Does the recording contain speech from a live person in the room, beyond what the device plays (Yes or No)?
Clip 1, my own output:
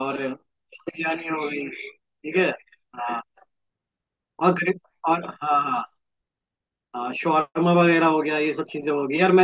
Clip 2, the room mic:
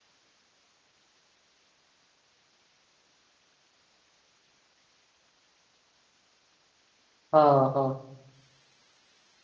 Yes